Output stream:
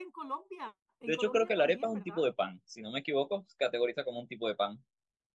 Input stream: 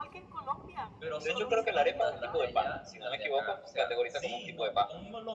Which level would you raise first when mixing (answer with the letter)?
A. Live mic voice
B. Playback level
A